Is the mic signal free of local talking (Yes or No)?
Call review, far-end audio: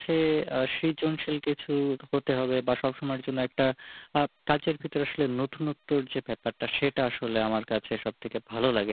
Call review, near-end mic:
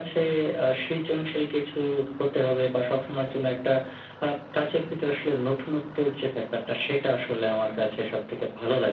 Yes